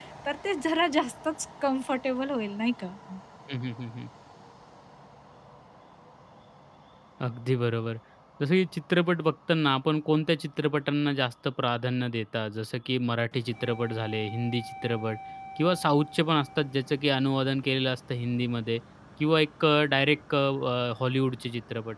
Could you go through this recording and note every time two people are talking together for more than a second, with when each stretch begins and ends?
none

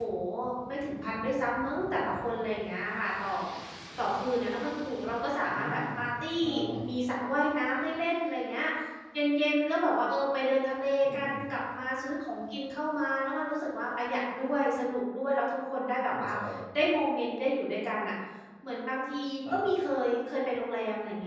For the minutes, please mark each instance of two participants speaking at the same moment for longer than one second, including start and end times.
none

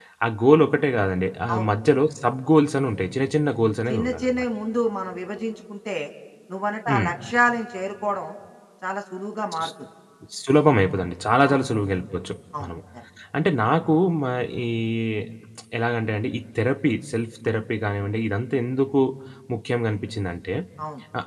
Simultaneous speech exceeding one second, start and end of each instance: none

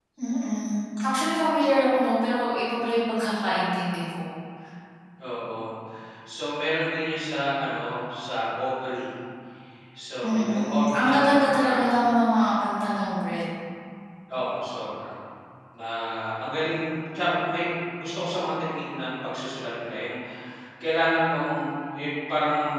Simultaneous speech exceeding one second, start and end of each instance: 10.2-11.8

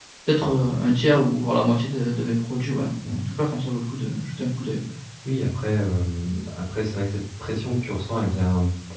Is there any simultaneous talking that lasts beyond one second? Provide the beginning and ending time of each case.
none

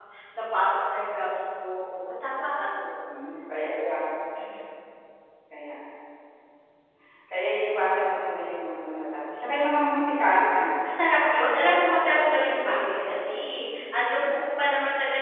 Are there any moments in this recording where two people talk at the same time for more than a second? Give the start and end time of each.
11.3-13.2

